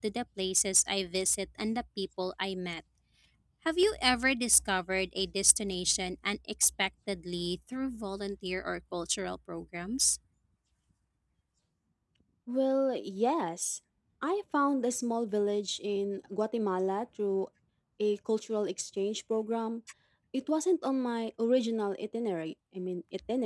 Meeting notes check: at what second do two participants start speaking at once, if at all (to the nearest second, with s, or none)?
none